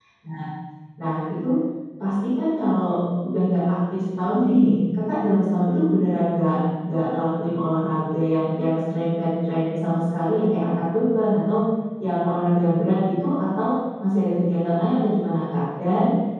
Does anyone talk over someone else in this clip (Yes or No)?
No